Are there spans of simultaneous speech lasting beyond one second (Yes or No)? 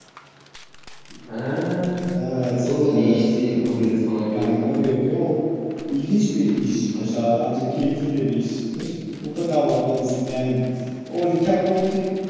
Yes